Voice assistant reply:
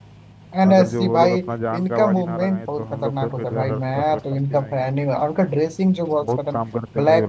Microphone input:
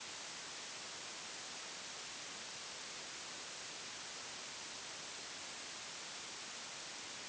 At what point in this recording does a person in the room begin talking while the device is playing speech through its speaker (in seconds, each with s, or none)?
none